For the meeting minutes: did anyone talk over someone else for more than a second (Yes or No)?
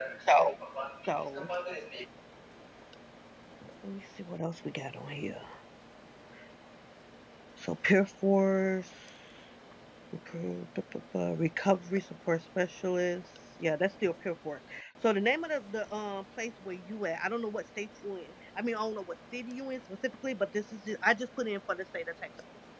No